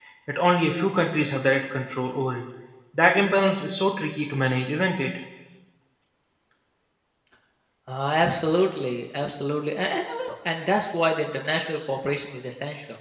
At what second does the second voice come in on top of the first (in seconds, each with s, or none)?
none